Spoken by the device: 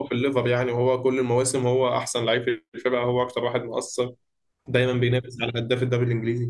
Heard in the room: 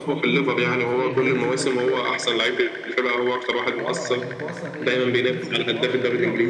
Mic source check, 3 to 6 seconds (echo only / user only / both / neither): both